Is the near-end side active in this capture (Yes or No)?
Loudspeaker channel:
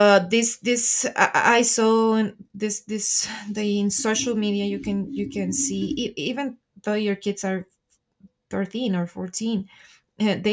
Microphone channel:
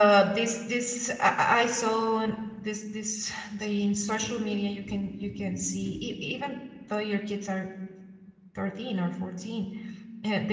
No